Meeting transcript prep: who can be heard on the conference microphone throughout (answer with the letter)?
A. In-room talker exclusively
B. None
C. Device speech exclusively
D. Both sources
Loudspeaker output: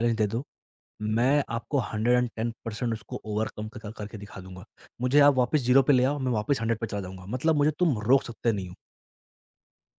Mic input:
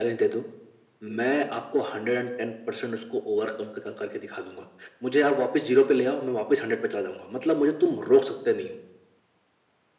C